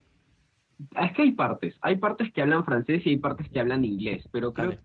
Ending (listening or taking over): listening